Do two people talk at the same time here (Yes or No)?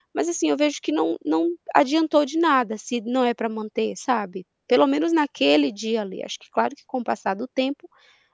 No